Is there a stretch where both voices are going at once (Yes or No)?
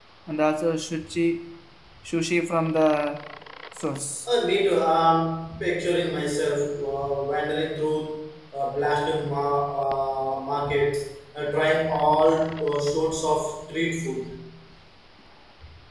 No